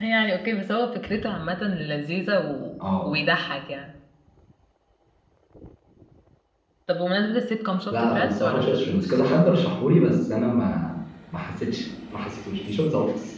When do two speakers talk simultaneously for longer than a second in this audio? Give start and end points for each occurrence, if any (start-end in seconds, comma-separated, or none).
7.9-9.2